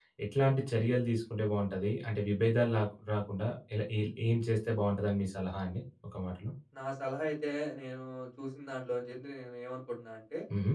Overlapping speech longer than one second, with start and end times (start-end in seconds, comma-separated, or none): none